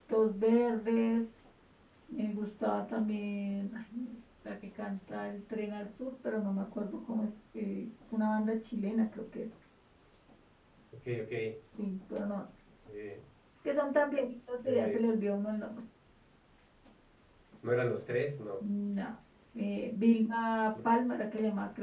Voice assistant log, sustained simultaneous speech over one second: none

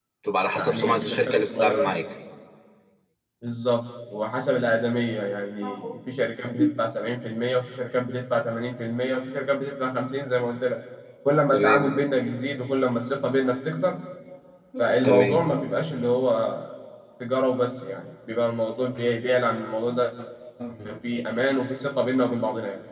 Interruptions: present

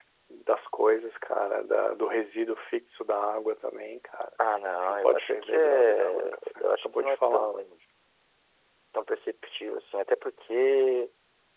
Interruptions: present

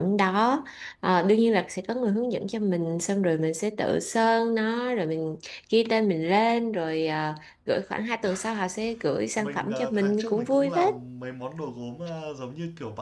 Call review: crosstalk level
present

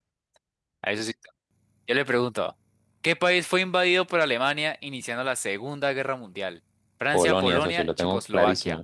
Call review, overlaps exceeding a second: present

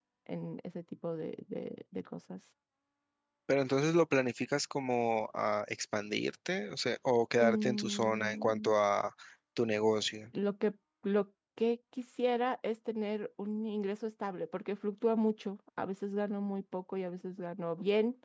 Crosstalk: present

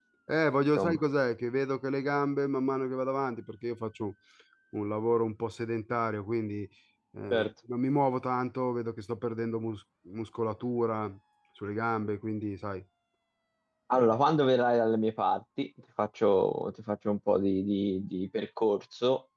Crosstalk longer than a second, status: none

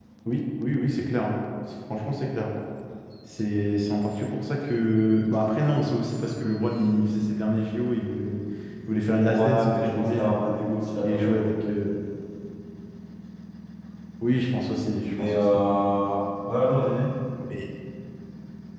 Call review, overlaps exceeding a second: present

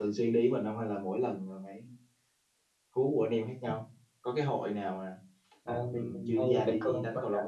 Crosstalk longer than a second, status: present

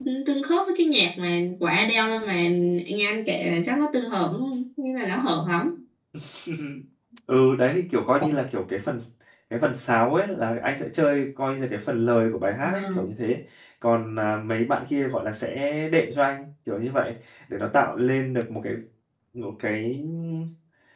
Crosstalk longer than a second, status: none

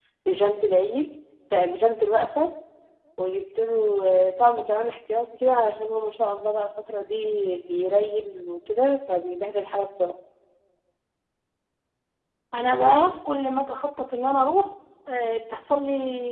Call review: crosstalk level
none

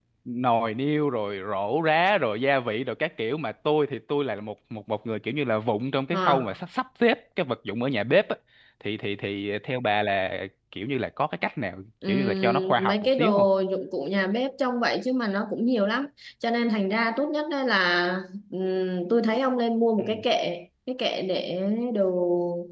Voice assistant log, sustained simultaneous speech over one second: present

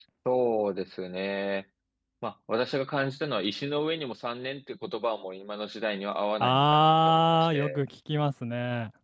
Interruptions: present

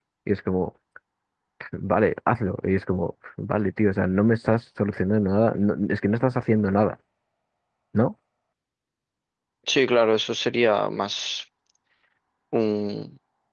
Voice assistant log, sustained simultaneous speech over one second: none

